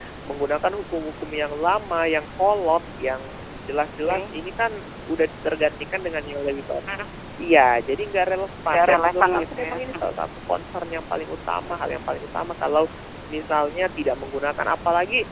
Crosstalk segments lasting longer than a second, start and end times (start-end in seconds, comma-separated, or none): 8.7-10.1